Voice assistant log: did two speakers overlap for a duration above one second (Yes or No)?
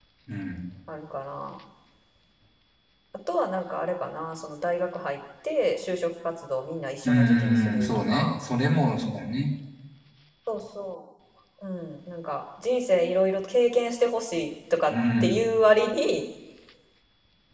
Yes